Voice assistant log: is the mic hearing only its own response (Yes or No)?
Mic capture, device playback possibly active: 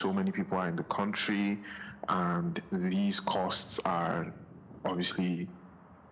Yes